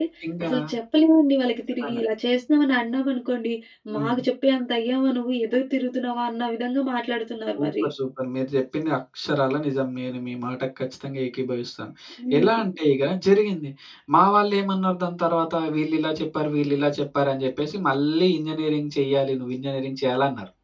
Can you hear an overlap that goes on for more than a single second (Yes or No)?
No